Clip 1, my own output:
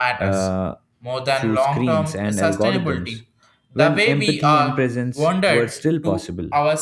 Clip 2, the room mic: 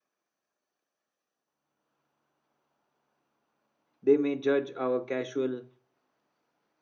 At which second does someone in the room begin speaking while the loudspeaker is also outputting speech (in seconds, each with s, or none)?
4.0 s